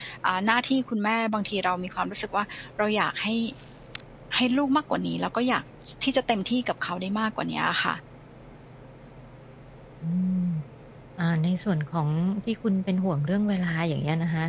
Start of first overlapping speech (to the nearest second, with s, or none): none